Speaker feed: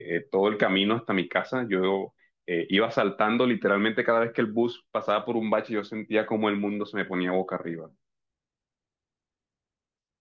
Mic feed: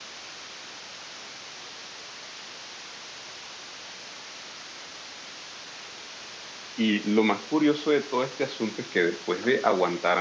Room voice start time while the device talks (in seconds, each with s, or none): 6.8 s